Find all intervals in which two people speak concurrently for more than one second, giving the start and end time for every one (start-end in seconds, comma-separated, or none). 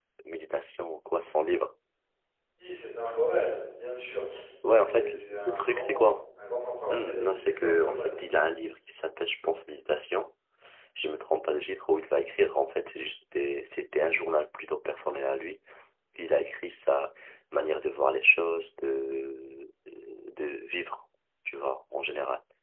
4.8-6.1, 6.9-8.2